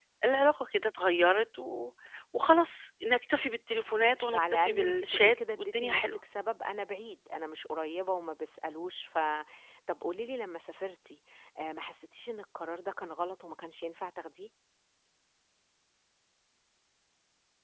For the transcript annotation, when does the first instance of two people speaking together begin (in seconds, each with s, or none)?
4.3 s